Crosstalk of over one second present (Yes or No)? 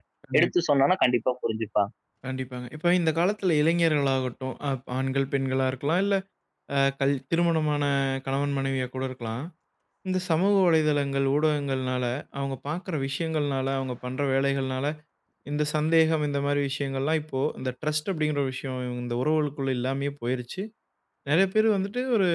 No